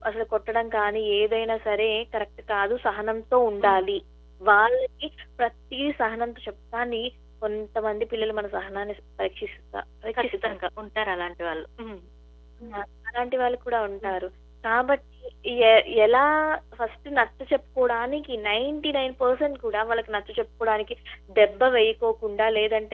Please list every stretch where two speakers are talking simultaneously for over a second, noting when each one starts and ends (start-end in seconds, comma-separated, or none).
none